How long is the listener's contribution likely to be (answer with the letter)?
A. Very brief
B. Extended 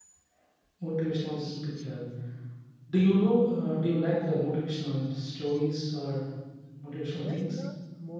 B